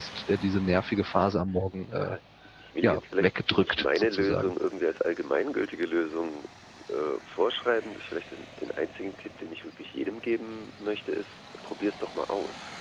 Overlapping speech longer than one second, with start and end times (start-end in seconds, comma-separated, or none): 2.8-4.5